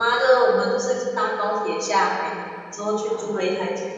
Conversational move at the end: listening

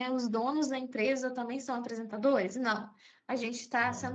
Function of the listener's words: listening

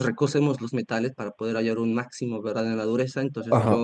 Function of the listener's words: listening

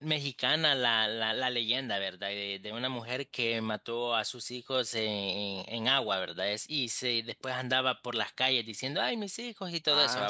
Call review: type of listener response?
taking over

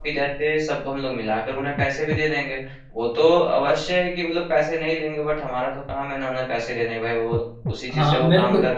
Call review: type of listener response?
taking over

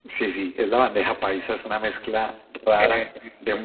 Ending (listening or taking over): listening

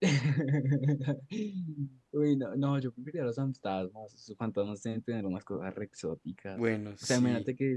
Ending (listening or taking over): listening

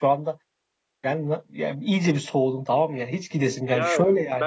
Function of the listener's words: taking over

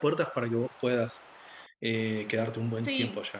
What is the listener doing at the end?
taking over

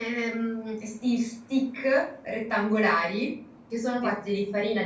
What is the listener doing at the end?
listening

